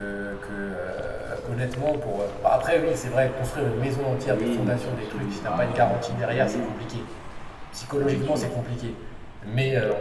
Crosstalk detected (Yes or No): Yes